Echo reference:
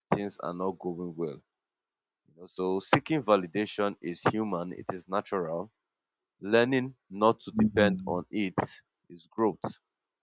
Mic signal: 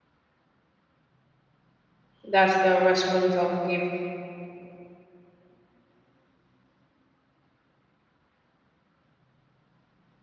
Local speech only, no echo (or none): That's the response I'll give.